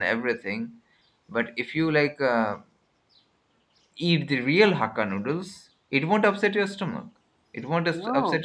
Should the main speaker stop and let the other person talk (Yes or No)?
No